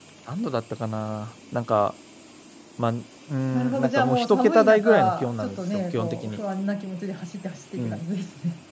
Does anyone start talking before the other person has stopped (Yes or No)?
Yes